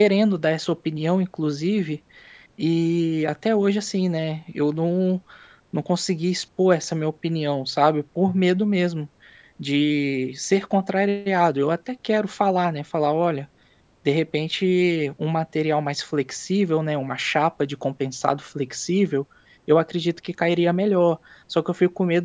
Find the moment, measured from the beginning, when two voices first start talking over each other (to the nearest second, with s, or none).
none